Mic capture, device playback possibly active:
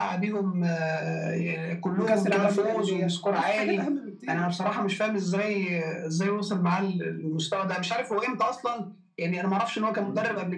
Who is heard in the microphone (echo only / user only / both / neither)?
both